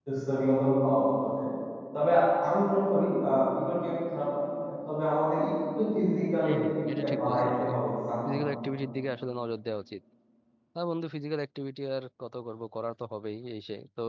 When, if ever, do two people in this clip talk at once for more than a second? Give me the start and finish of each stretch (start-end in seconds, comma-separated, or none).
6.4-7.7